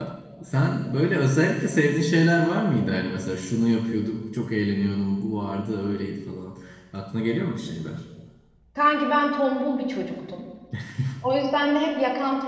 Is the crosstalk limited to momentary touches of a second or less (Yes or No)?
Yes